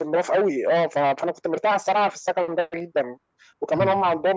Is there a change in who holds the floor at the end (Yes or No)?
No